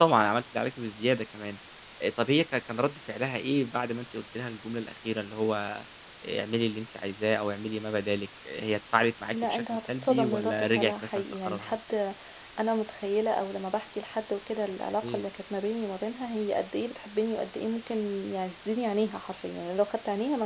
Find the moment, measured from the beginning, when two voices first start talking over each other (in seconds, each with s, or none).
9.3 s